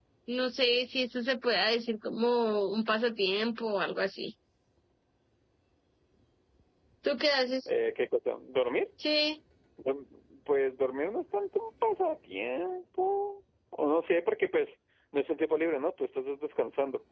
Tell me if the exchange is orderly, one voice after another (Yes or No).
Yes